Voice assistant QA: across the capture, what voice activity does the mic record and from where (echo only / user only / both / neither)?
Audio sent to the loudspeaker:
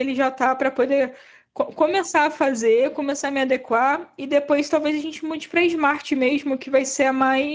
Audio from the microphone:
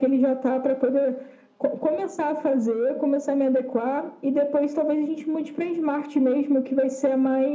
echo only